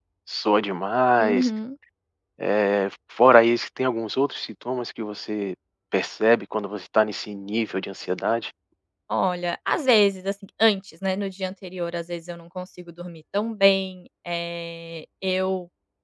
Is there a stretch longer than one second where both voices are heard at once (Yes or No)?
No